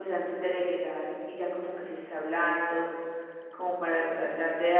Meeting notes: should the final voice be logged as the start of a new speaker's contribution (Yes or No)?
No